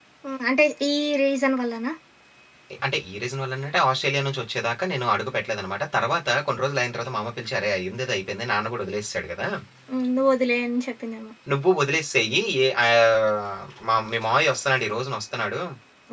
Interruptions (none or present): none